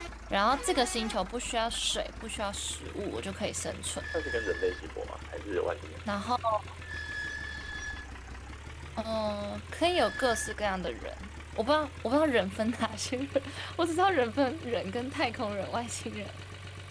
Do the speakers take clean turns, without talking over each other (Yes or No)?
Yes